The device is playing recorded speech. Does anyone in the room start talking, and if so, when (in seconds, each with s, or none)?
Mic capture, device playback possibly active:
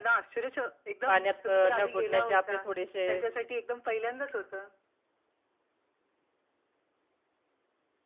1.1 s